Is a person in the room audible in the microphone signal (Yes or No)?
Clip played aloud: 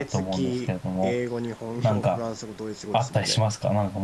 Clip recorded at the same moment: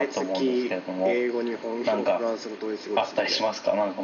No